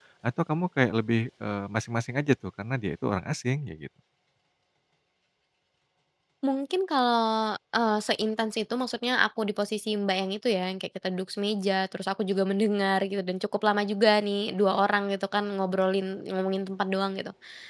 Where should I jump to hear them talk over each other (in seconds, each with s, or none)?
none